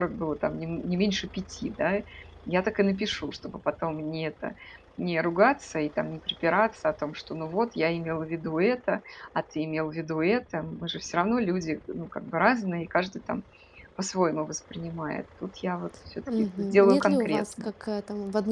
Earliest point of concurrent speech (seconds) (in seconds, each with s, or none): 16.3 s